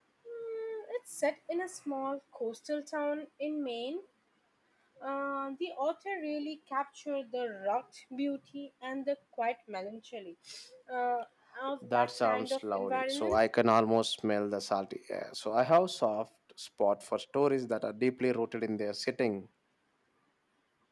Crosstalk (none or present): present